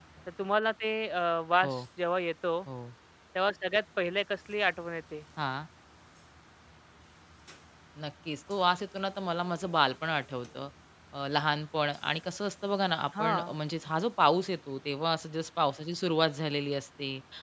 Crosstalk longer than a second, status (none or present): none